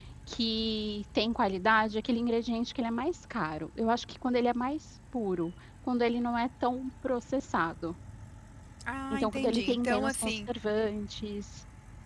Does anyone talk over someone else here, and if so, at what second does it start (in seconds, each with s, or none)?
9.1 s